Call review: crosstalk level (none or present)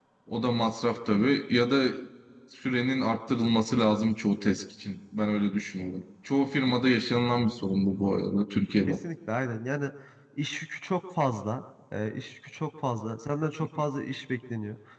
none